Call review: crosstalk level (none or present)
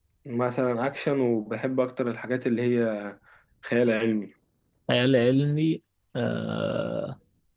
none